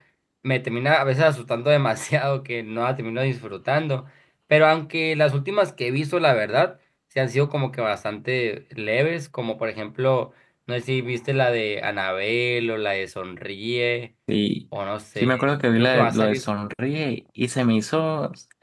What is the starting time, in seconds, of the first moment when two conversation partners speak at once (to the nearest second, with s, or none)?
15 s